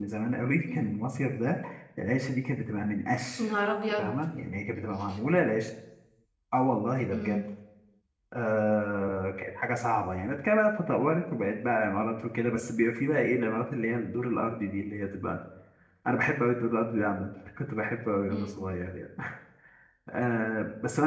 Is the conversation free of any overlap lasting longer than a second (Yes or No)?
Yes